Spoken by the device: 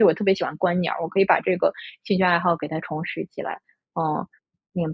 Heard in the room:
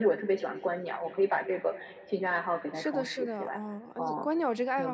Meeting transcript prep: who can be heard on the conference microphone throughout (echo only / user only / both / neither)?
both